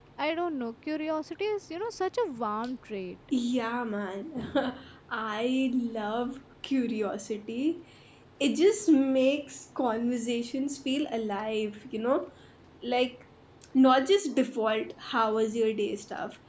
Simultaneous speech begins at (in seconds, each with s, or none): none